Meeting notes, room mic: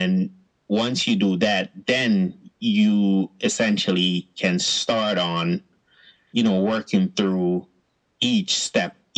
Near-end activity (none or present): none